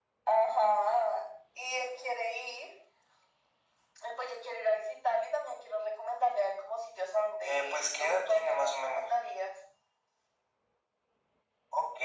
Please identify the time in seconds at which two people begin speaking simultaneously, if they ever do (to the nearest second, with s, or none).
7 s